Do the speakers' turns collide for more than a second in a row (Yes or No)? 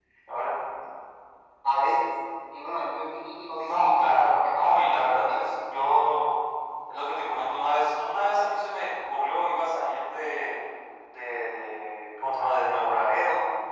Yes